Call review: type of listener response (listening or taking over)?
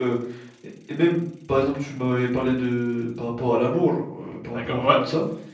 taking over